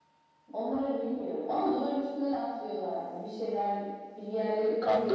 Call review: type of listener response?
taking over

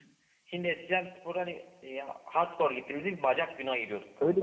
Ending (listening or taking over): taking over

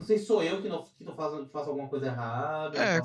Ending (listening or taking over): taking over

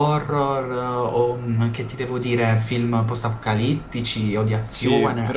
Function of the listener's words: taking over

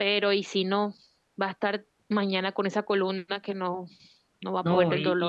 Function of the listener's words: taking over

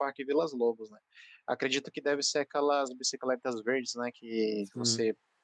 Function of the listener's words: listening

